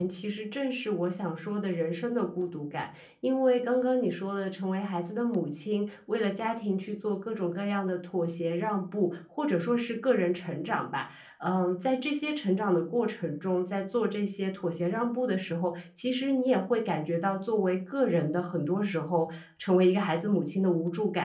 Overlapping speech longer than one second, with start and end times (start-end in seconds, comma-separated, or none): none